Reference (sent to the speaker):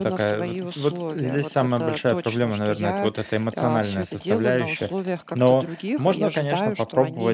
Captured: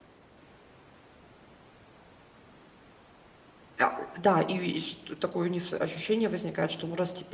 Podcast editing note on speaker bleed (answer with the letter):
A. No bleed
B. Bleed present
A